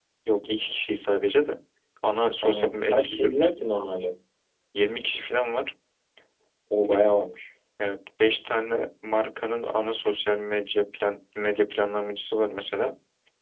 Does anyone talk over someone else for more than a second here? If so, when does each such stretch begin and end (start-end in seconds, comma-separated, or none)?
2.4-4.1